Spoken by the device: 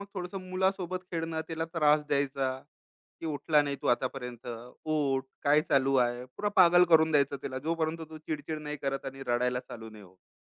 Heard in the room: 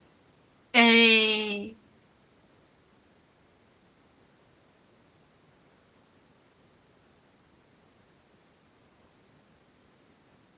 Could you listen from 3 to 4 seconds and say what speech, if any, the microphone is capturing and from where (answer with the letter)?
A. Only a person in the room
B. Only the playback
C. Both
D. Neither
D